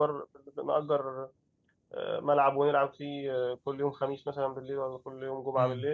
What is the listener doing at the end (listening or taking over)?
taking over